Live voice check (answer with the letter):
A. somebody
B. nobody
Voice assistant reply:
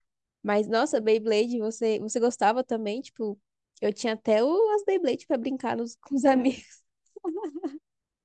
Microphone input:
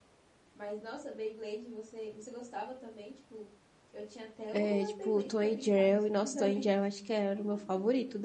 A